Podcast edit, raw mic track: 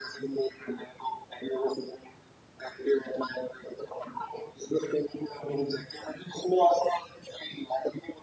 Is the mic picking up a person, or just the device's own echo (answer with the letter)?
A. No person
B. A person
A